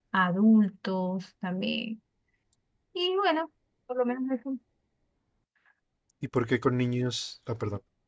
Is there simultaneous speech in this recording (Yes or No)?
No